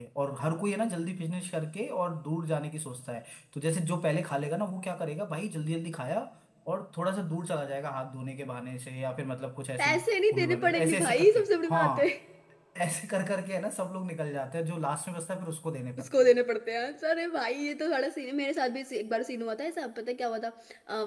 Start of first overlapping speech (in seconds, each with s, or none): 9.8 s